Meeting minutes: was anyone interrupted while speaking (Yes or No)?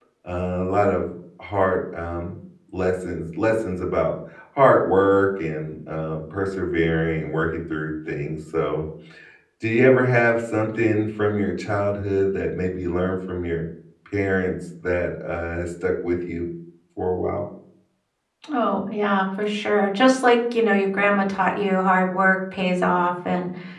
No